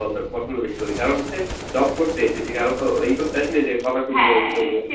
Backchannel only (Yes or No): No